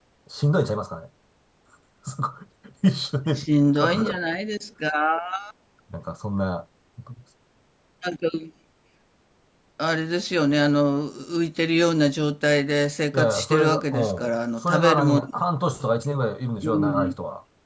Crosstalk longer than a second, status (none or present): present